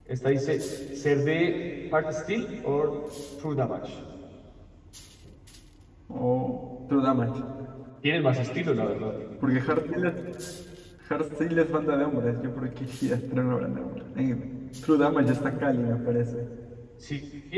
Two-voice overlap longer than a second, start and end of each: none

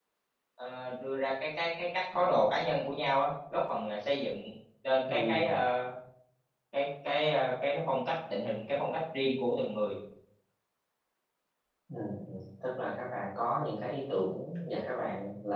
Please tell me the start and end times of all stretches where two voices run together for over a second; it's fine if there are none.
none

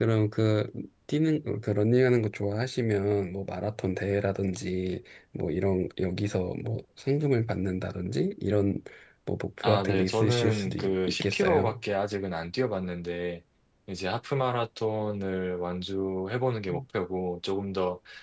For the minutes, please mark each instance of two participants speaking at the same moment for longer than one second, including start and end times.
9.6-11.8

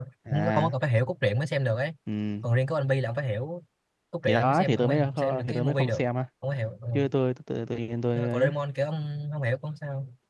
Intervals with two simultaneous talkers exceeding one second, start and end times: 4.3-6.0

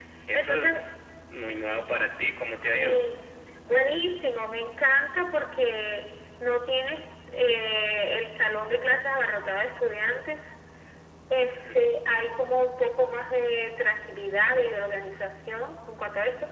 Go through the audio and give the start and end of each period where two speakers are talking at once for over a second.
none

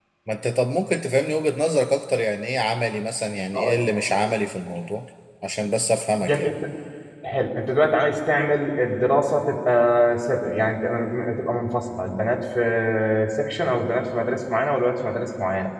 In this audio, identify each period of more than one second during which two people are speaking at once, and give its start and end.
none

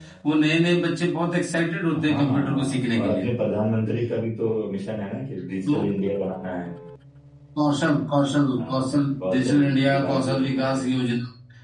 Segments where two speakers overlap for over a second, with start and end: 2.0-3.3, 8.6-10.7

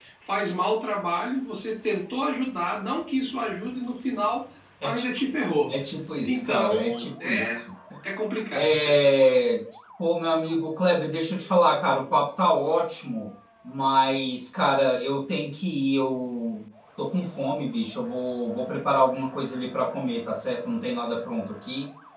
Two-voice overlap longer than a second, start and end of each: 6.2-7.6

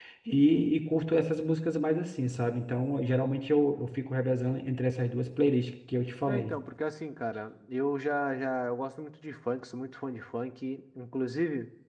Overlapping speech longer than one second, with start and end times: none

